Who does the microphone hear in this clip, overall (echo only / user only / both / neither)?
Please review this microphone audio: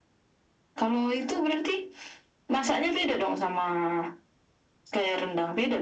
echo only